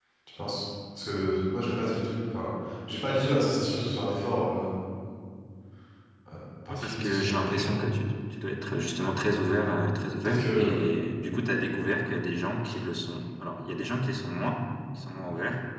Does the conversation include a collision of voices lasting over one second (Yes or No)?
Yes